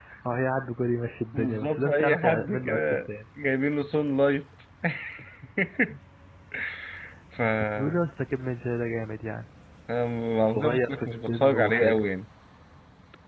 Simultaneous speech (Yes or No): Yes